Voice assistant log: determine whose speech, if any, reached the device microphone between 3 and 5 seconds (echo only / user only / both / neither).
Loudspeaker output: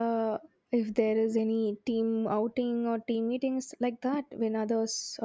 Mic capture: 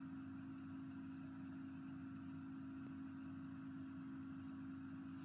neither